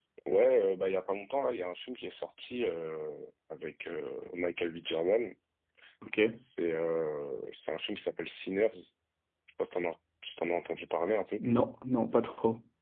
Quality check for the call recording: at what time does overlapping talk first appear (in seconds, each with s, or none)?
none